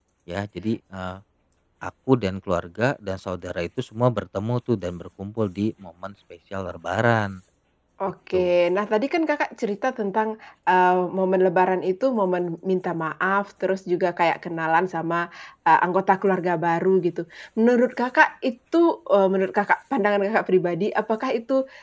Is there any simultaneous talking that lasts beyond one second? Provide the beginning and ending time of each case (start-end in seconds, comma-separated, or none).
none